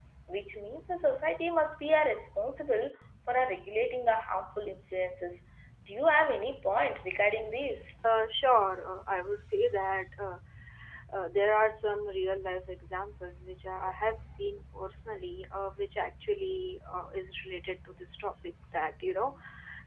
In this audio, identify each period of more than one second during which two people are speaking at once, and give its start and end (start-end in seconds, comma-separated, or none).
none